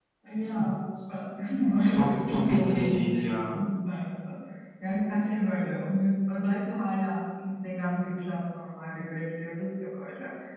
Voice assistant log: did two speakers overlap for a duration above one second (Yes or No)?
Yes